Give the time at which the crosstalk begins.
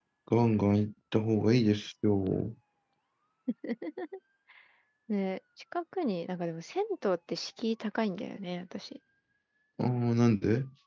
none

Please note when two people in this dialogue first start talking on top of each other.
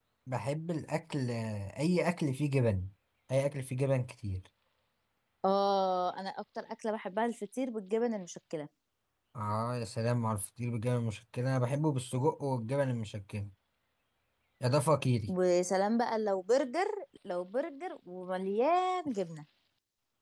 none

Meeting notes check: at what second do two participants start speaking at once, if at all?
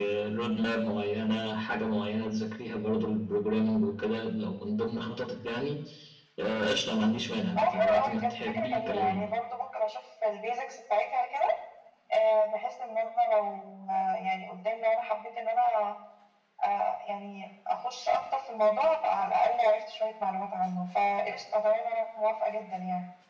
7.5 s

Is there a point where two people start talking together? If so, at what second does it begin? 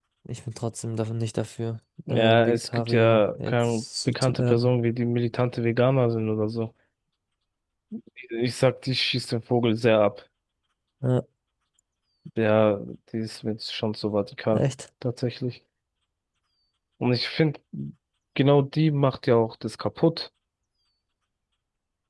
2.1 s

